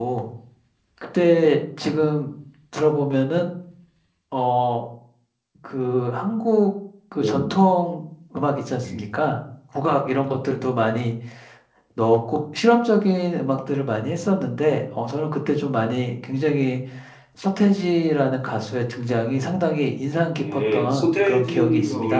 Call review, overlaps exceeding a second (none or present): present